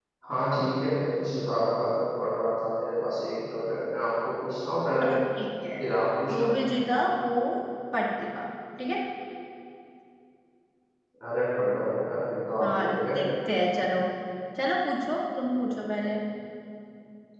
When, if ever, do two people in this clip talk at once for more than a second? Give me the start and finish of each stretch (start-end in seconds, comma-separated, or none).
none